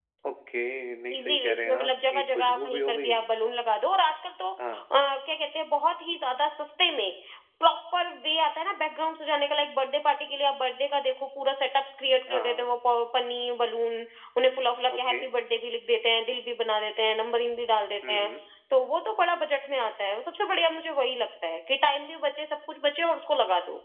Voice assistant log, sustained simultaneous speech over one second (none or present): present